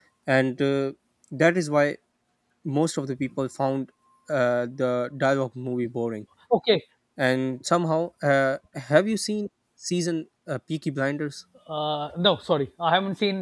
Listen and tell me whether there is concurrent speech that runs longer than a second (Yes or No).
No